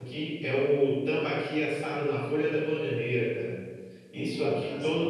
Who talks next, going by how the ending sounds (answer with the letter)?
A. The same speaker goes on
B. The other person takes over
A